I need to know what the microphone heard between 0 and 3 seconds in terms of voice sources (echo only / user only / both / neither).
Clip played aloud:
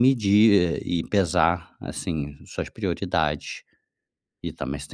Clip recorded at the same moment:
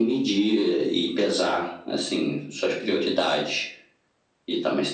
echo only